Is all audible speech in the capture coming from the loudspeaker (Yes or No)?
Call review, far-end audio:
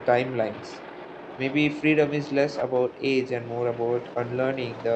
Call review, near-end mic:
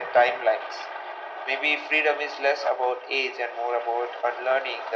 Yes